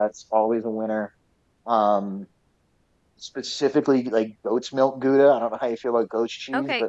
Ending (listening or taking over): taking over